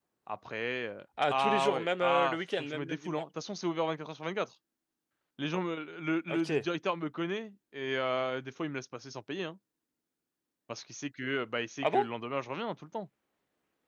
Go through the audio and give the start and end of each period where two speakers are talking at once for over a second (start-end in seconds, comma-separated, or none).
1.3-3.2